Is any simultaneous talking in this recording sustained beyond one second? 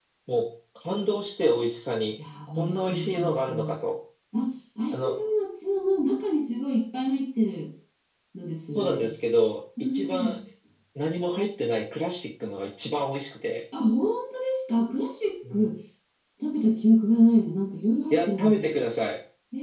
Yes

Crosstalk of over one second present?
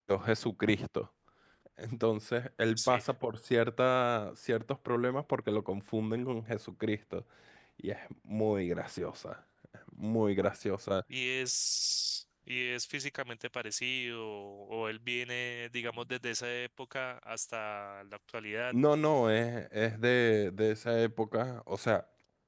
No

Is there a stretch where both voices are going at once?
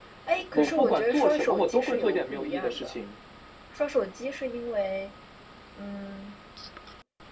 Yes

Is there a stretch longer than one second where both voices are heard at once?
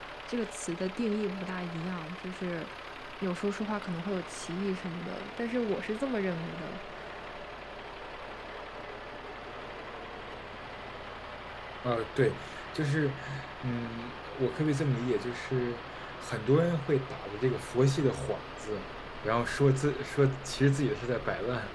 No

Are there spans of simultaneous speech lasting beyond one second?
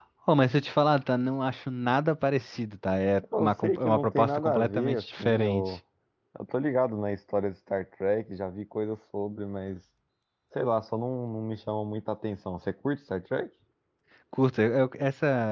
Yes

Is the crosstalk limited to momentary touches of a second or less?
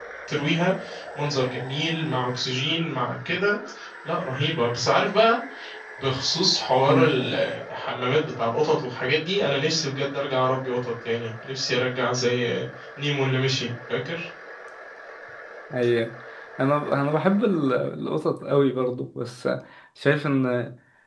Yes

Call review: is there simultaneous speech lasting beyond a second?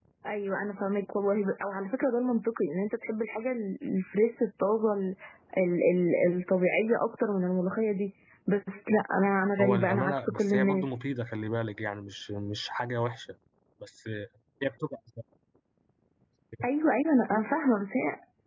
Yes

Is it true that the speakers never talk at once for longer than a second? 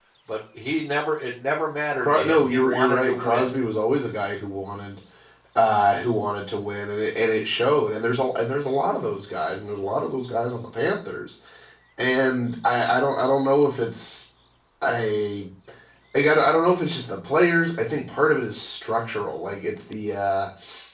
No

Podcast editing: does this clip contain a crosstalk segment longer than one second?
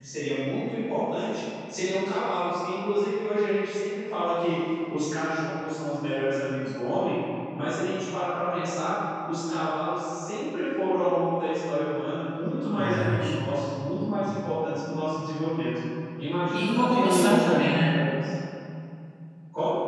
Yes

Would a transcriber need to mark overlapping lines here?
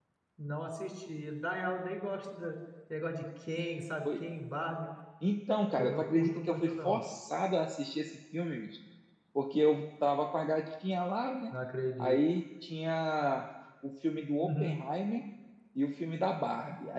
Yes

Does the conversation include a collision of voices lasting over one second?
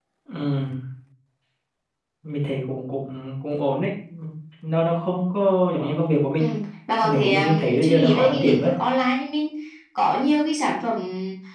Yes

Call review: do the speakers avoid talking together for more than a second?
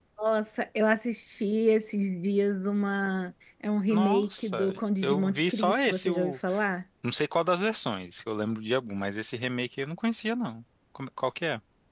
No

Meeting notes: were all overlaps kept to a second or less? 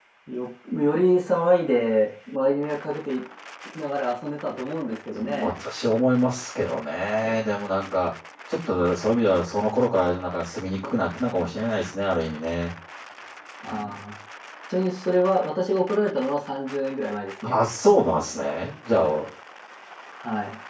Yes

